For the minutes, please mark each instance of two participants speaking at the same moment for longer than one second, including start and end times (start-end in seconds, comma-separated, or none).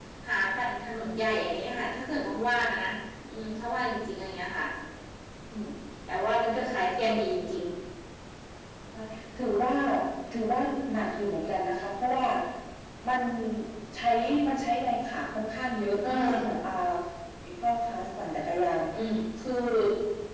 none